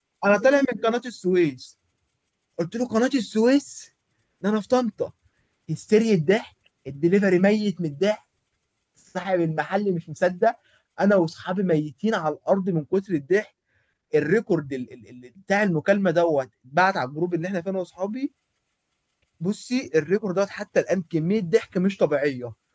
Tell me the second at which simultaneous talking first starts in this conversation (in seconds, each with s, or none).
none